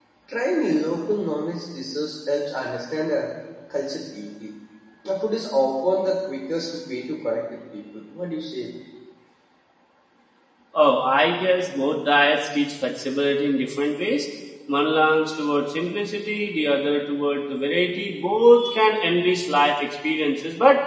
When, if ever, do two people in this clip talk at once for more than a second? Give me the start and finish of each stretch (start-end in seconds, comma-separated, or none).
none